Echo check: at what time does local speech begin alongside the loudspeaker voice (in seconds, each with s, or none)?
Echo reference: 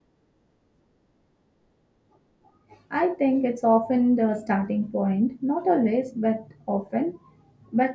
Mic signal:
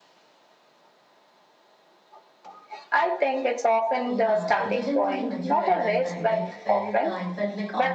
4.0 s